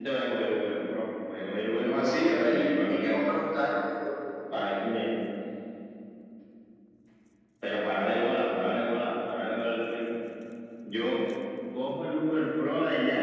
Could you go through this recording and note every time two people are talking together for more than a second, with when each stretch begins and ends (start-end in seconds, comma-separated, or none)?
1.8-3.3